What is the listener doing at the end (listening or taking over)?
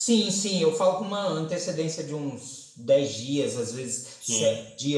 listening